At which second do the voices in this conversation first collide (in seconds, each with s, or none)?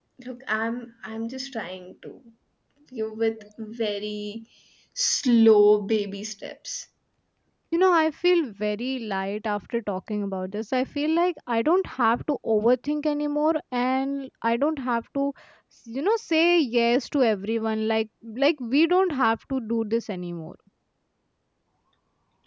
none